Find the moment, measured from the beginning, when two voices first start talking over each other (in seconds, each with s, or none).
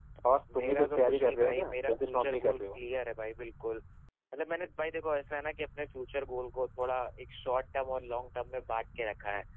0.6 s